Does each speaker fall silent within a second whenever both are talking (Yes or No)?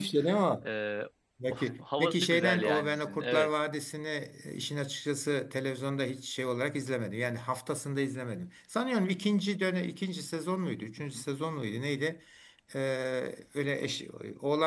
No